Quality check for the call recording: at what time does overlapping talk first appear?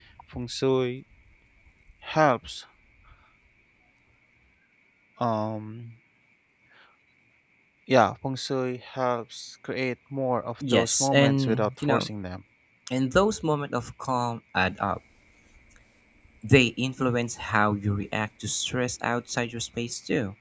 10.6 s

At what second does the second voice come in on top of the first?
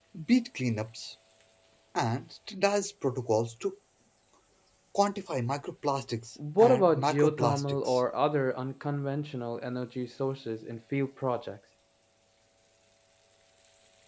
6.4 s

